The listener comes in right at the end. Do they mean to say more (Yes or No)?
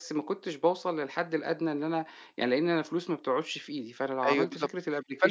Yes